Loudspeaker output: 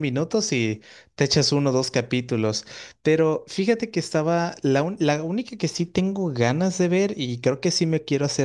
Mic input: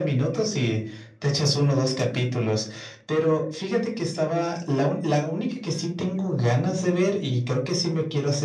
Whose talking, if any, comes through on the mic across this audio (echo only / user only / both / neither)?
echo only